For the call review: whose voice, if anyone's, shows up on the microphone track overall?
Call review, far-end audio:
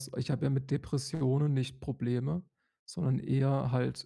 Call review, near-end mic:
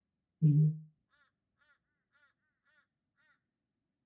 user only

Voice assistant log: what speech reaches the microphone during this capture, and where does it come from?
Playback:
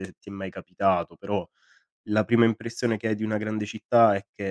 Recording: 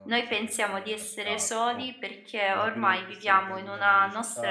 both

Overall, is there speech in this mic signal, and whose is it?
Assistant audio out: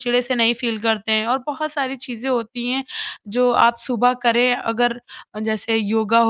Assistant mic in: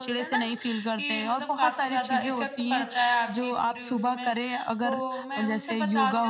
both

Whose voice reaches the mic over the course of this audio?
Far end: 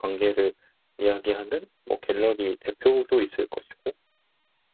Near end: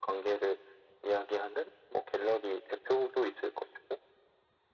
echo only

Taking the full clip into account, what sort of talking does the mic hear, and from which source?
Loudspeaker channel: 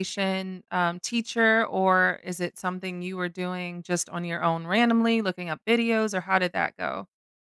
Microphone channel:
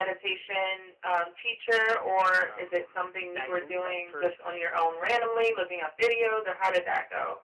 both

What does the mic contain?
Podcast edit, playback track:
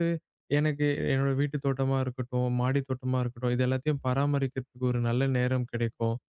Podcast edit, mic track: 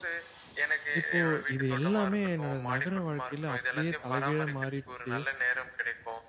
both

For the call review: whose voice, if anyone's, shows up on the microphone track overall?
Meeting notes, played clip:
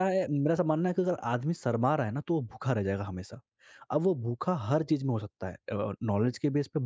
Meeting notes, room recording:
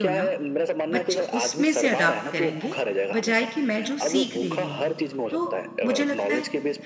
both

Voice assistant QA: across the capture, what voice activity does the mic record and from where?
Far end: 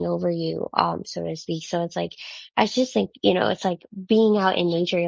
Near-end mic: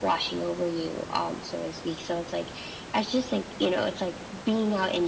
echo only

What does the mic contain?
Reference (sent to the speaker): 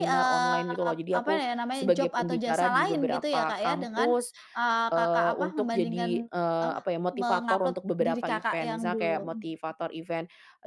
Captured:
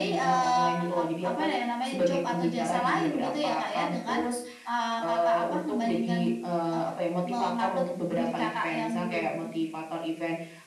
echo only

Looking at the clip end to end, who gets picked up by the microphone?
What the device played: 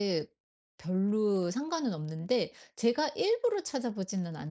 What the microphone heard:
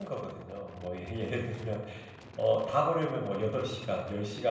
user only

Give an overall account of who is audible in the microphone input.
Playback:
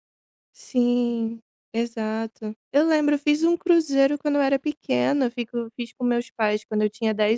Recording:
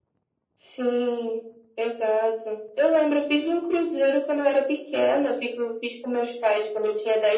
echo only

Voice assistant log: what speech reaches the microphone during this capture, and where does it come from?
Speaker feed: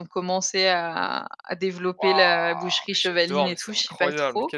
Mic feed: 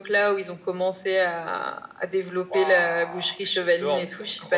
echo only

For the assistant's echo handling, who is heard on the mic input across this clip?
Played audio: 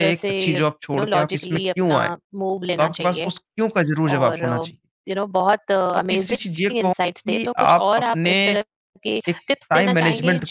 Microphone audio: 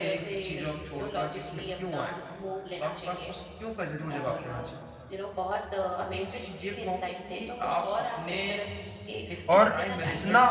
both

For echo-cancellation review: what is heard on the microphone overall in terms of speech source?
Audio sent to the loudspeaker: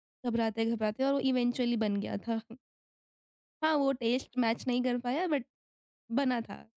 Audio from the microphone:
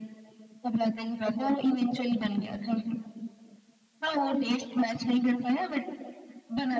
echo only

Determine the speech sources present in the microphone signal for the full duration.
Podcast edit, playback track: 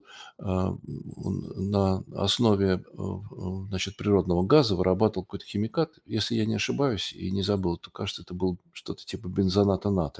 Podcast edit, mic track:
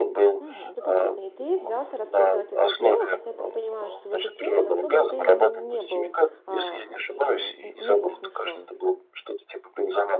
both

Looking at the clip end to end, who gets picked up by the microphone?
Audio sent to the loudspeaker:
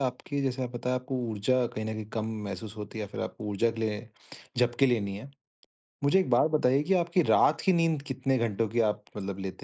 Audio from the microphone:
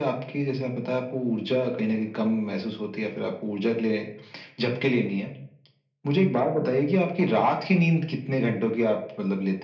echo only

